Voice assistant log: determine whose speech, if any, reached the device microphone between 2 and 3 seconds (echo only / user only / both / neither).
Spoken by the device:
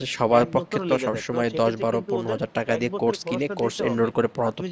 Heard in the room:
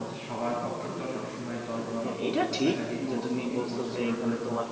both